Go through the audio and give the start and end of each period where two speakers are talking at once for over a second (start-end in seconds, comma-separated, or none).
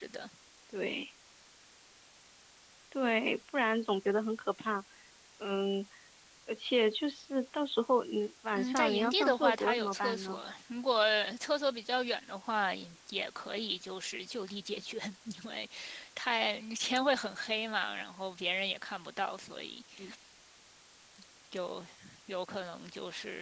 8.5-10.4